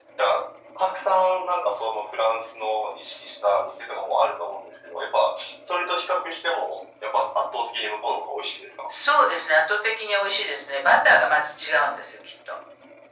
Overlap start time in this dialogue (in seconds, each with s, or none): none